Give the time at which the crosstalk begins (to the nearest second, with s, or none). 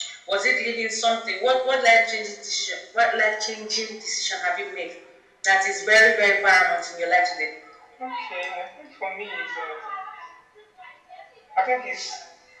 none